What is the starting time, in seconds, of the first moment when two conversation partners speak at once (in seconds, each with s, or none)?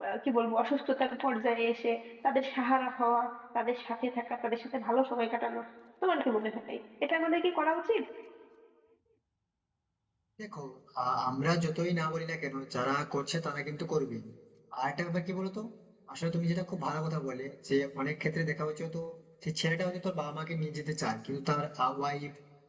none